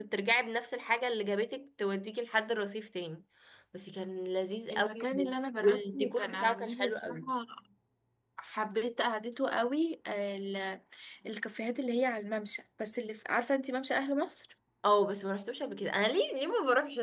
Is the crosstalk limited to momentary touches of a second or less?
No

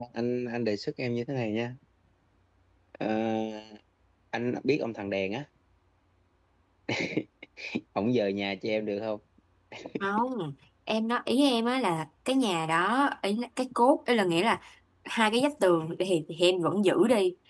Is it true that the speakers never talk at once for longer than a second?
Yes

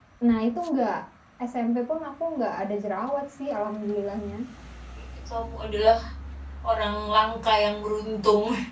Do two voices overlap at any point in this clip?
No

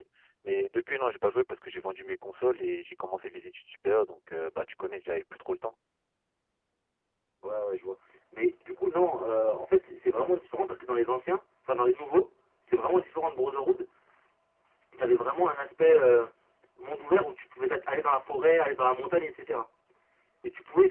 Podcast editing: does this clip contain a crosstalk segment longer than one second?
No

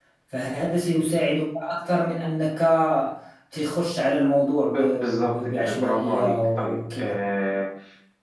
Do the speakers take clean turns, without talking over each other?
No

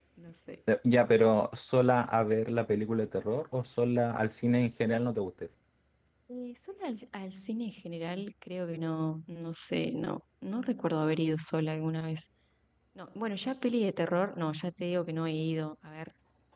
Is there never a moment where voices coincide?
Yes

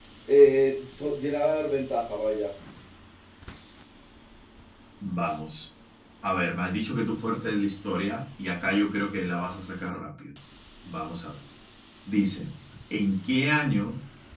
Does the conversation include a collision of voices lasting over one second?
No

